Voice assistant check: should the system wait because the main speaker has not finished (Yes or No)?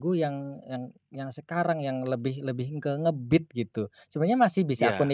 Yes